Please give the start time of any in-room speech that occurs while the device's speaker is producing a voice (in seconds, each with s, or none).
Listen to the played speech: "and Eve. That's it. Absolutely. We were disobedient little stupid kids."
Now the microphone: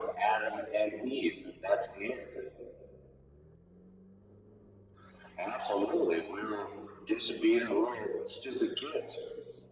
none